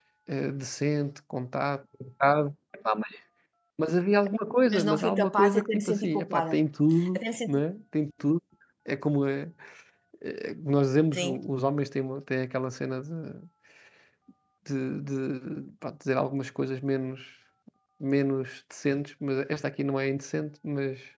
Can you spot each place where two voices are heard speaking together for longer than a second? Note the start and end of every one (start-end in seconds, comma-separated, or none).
4.7-6.6